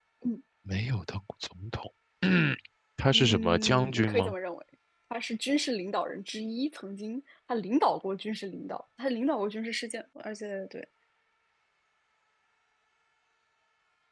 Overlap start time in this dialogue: 3.1 s

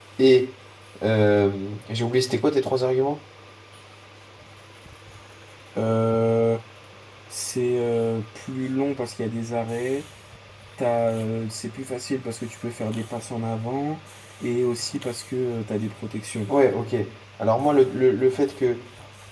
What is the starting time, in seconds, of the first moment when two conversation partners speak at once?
none

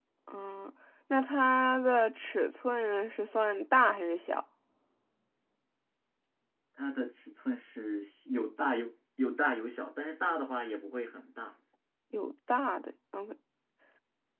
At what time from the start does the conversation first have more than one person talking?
none

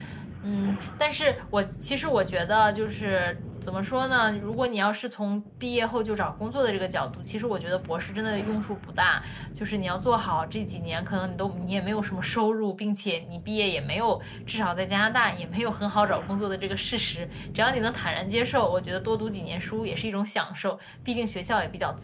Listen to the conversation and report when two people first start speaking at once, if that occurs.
none

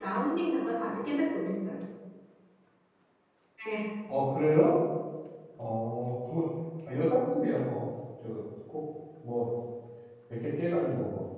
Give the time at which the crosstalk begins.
none

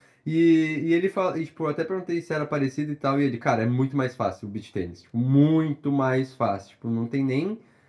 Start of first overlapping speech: none

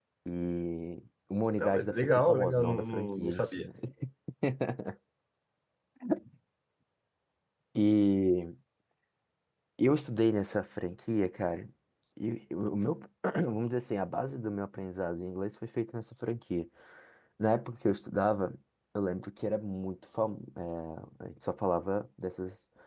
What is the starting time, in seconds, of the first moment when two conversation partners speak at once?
1.6 s

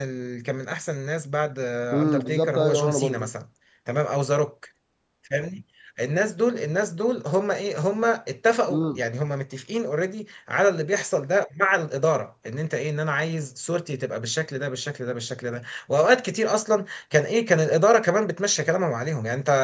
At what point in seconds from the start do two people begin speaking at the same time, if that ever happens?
1.9 s

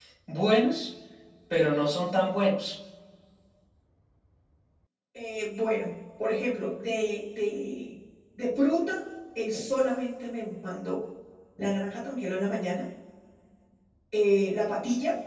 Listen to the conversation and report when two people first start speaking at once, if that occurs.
none

